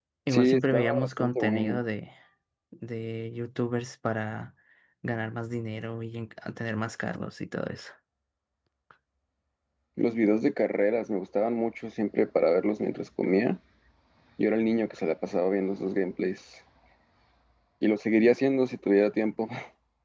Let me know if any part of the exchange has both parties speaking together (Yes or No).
Yes